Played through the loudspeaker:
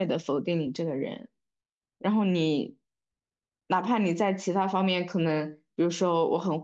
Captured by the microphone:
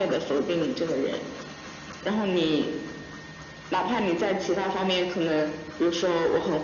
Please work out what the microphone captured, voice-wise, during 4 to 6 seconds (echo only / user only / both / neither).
echo only